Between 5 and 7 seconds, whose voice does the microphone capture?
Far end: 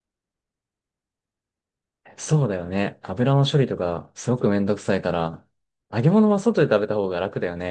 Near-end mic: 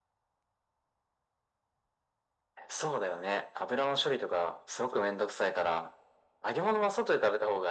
echo only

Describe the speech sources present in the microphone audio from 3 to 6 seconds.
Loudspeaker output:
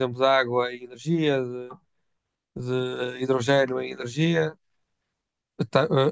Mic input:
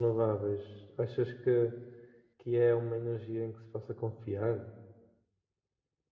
user only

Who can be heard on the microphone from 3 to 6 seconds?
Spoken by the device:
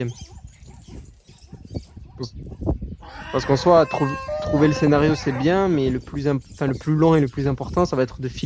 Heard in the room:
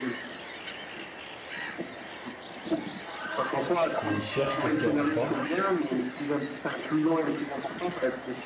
both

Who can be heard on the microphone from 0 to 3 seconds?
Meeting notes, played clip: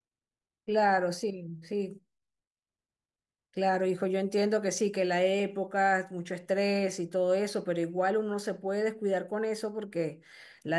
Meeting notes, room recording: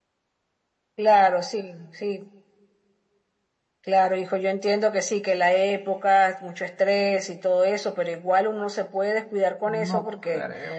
echo only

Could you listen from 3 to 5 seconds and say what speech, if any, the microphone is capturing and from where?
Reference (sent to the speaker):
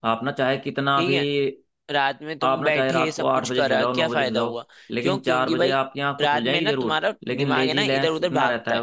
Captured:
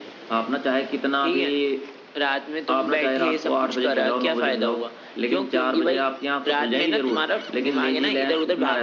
echo only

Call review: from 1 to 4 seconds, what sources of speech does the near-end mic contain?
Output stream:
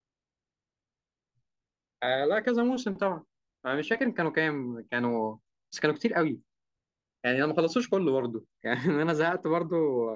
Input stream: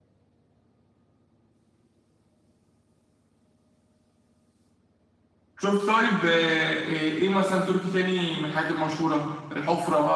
neither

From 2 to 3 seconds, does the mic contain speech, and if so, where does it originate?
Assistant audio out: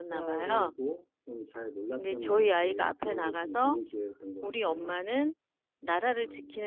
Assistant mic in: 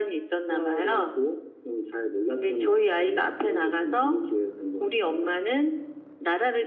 echo only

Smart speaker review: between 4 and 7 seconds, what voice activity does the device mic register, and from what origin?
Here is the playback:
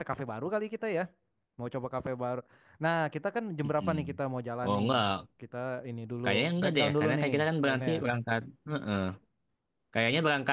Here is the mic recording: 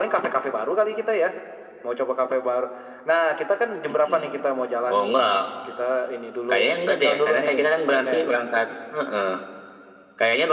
echo only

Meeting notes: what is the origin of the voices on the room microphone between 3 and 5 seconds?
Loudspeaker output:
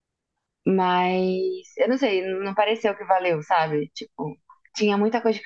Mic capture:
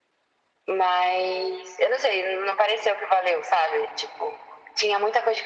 echo only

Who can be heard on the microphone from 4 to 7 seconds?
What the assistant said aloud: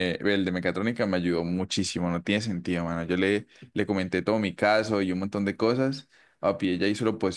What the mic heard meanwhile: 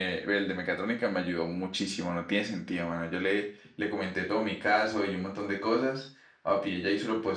echo only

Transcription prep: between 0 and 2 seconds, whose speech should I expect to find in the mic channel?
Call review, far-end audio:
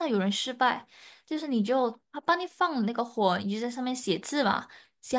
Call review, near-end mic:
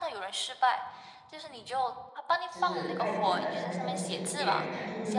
echo only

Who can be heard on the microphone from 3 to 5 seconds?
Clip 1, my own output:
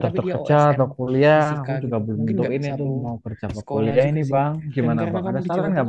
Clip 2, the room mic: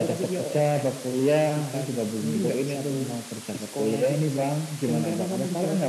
echo only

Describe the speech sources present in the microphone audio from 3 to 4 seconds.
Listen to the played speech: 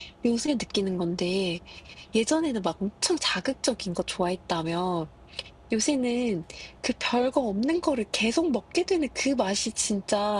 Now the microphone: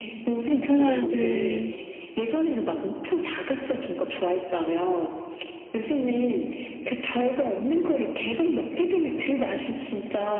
echo only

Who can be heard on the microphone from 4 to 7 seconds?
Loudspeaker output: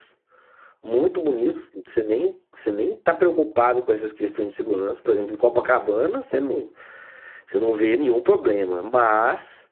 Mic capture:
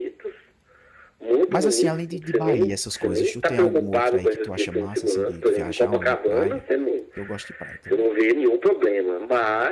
both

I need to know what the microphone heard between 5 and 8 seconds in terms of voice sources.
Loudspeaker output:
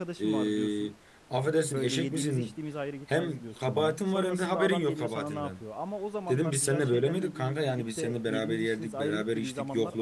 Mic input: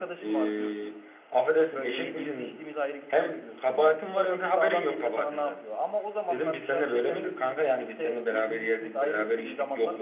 echo only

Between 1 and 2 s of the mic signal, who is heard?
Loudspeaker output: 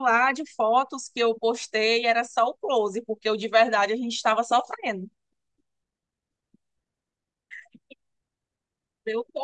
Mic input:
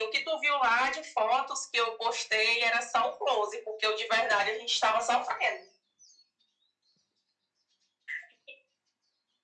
echo only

